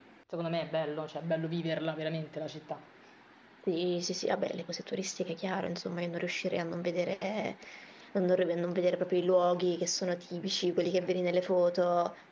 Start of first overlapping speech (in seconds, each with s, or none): none